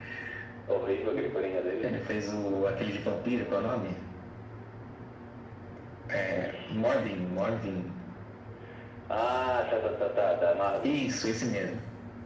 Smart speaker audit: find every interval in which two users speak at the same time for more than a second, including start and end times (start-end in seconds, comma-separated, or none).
none